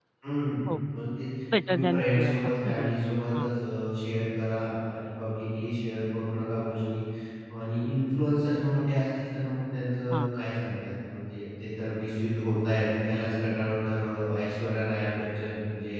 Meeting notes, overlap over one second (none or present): present